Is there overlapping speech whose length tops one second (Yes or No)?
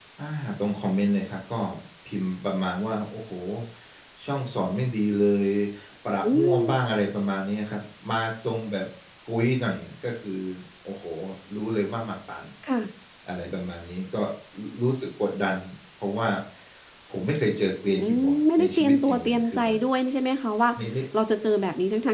Yes